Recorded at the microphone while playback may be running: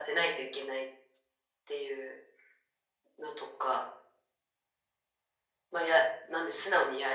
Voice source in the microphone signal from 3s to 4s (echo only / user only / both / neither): echo only